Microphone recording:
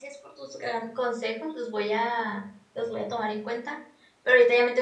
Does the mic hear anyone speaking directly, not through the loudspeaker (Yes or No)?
Yes